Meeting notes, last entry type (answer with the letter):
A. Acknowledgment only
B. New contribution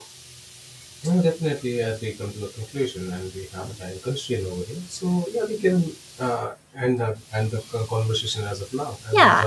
B